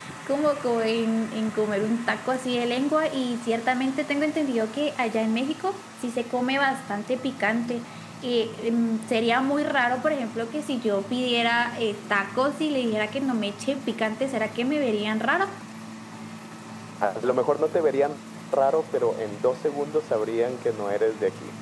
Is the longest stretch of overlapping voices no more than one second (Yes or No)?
Yes